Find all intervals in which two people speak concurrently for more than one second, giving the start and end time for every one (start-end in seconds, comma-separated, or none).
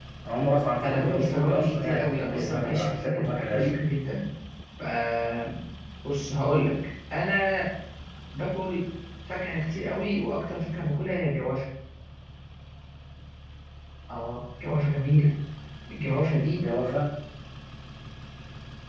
0.8-3.8